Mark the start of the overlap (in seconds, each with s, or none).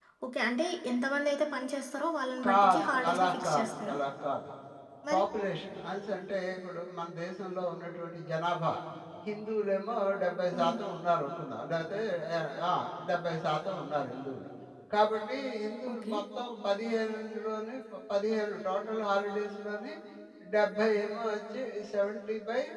2.5 s